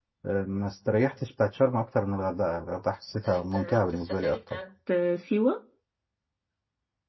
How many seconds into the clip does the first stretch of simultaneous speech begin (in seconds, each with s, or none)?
3.2 s